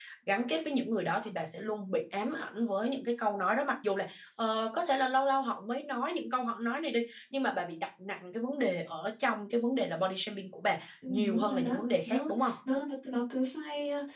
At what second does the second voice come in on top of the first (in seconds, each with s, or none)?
11.0 s